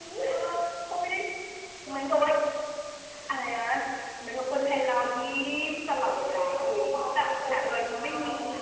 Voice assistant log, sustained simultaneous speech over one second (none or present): present